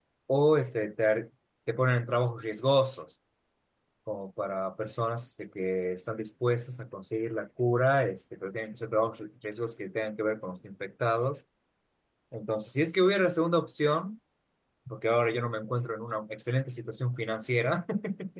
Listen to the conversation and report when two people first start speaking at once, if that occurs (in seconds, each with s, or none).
none